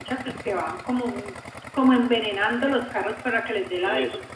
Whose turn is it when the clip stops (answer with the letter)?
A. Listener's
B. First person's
B